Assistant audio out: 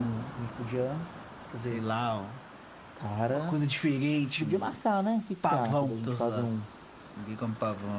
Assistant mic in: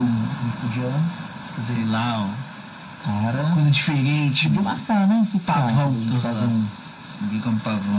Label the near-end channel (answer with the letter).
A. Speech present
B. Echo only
B